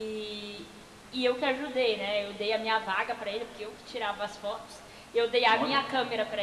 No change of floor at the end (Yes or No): Yes